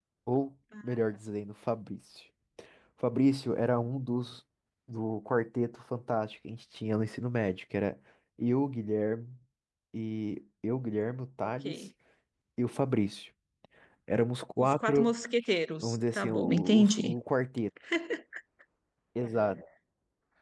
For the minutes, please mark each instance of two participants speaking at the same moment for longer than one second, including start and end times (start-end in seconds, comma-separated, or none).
15.8-17.1